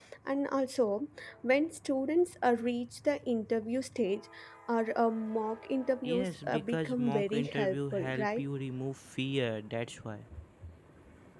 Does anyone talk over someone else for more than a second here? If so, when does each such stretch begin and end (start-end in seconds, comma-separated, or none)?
6.0-8.4